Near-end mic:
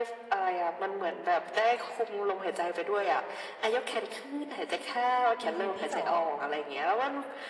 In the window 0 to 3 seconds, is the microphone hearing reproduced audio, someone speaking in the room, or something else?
echo only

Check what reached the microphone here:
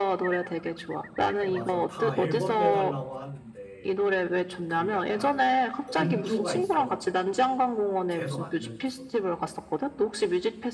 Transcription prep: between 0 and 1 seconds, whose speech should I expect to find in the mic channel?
echo only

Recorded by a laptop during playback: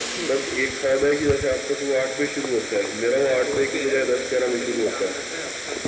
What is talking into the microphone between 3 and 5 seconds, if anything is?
echo only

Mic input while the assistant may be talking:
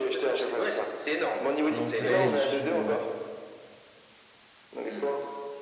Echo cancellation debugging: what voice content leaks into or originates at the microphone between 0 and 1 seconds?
echo only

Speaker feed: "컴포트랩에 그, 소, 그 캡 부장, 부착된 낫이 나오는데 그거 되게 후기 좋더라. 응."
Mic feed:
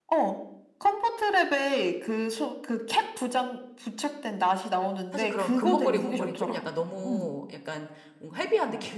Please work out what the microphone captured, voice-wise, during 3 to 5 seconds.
echo only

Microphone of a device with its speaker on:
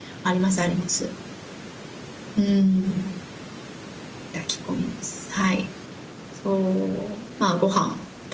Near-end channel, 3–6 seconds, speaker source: user only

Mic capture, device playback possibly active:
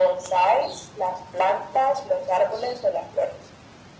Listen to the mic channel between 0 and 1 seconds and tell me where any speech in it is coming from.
echo only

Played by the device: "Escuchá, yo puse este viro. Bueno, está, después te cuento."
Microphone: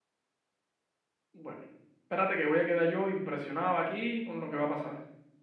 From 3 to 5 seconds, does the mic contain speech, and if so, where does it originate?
user only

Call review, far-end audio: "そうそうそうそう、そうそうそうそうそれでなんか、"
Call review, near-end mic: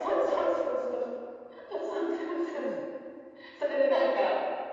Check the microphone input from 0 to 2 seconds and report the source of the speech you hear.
echo only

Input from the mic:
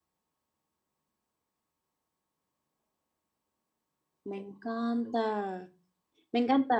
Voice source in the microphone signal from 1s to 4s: neither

